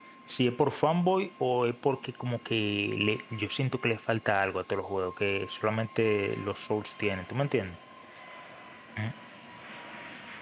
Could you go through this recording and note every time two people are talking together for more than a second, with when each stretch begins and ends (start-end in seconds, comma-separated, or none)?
none